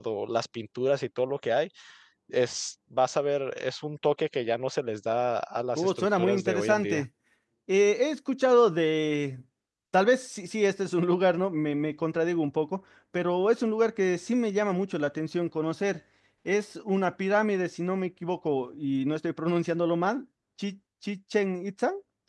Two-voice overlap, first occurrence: 5.8 s

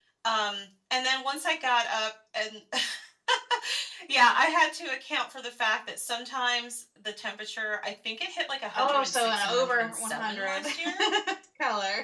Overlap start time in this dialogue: 8.7 s

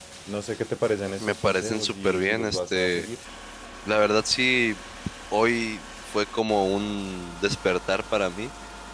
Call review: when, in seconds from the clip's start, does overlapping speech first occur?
1.2 s

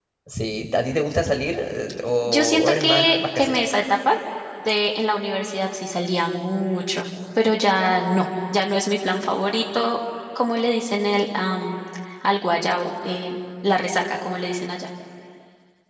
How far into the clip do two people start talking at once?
2.2 s

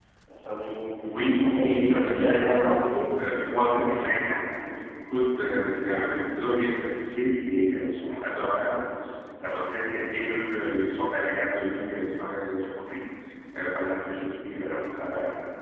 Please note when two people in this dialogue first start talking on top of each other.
1.1 s

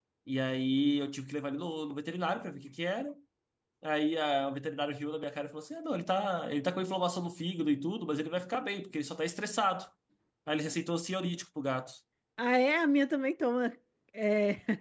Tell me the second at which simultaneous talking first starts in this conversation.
none

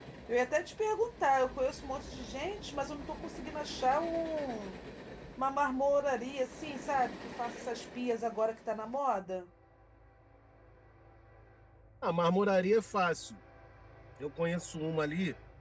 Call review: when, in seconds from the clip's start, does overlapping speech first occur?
none

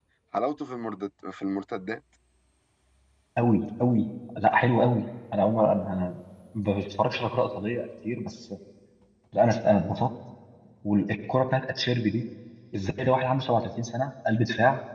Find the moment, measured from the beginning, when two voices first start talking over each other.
none

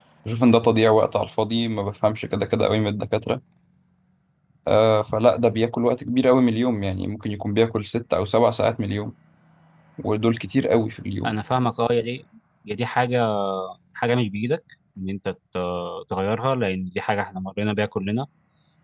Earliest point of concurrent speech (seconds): none

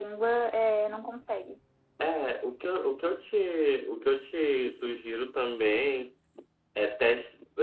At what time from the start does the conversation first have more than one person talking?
none

